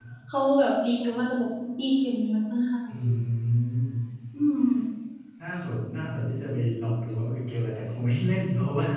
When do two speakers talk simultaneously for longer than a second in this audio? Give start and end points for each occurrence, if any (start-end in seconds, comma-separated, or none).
none